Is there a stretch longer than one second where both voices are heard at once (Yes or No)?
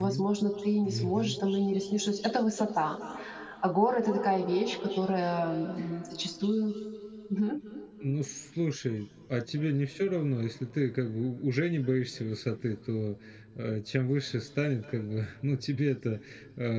No